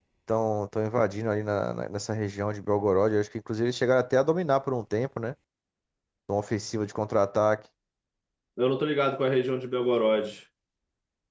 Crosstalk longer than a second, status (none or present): none